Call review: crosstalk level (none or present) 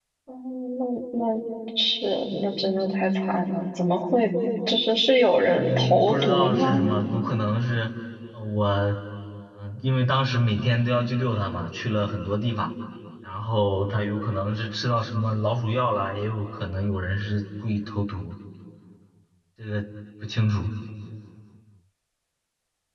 present